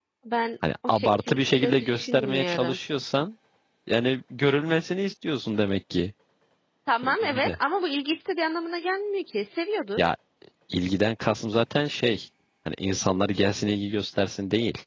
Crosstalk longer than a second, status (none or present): present